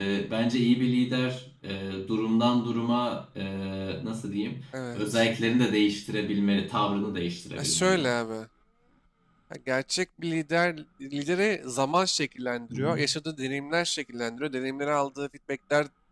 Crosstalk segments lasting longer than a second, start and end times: none

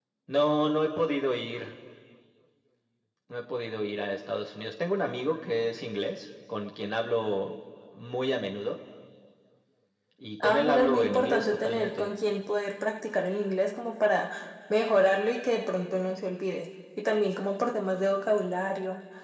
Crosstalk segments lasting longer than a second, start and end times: 10.4-12.1

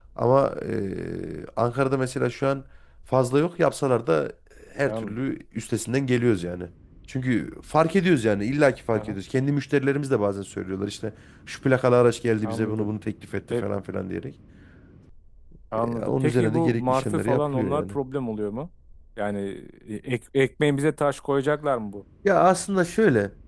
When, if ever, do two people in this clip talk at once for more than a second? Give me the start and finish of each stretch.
15.7-17.9

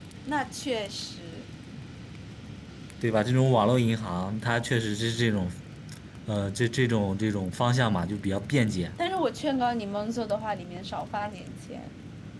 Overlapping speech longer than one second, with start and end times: none

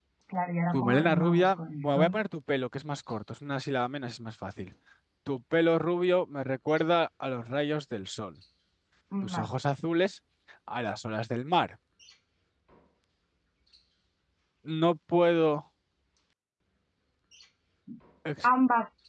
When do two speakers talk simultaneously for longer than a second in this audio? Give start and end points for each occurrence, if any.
0.7-2.2

